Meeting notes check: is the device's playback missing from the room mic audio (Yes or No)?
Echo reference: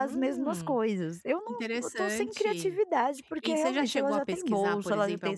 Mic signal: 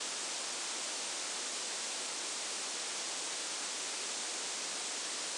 Yes